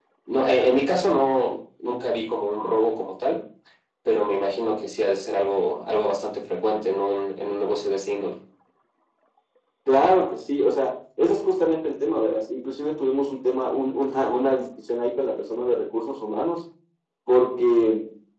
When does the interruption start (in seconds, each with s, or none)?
none